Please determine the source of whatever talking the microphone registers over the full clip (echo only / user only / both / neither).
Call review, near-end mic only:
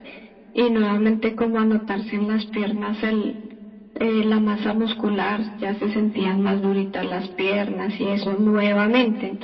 echo only